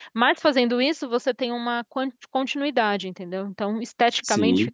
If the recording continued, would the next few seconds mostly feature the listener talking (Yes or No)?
Yes